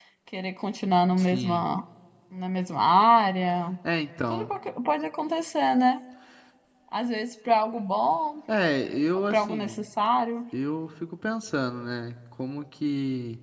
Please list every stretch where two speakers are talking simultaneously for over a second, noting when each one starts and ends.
none

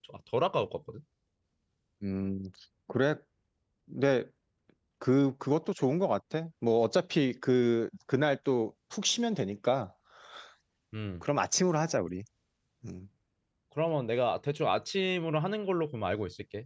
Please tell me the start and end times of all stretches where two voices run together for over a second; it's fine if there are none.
none

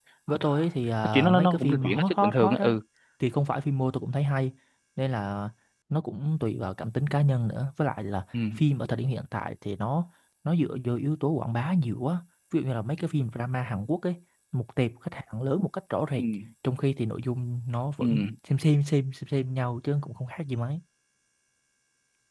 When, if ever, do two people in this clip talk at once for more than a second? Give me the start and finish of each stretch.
1.0-2.8

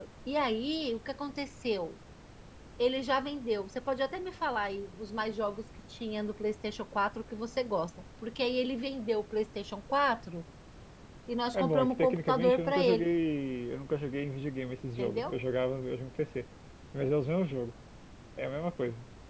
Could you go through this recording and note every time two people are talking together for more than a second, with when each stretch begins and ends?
11.5-13.1

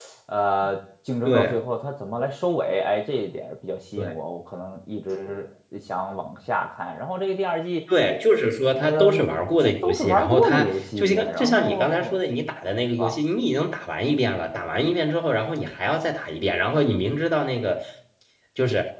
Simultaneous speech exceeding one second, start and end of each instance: 9.6-12.2

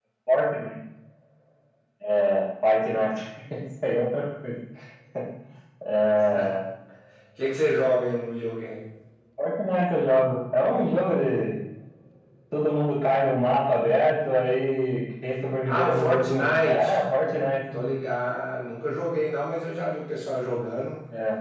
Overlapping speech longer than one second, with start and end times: 15.7-17.0

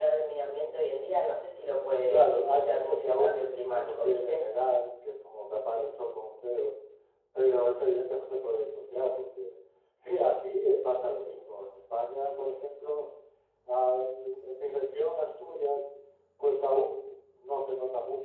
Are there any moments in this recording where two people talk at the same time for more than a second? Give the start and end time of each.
2.1-4.5

